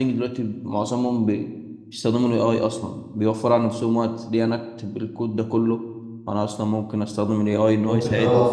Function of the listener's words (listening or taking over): taking over